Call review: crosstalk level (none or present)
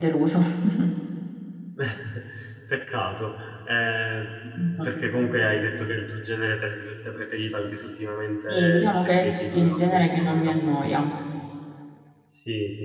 present